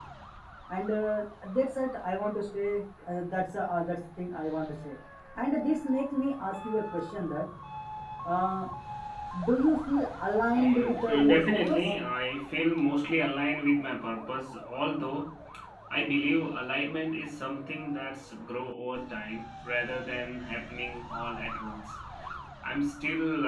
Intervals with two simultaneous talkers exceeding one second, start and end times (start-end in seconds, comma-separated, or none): 10.5-11.8